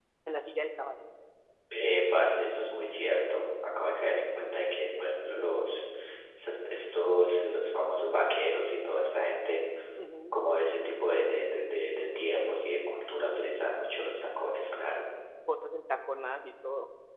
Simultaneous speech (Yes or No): No